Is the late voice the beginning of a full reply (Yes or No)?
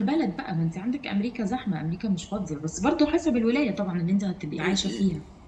Yes